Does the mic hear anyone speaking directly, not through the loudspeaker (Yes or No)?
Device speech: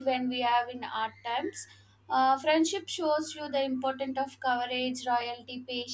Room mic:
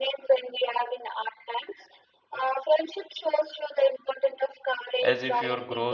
Yes